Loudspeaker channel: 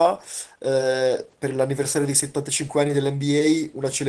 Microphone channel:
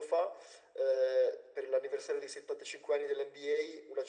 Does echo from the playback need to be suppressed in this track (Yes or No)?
Yes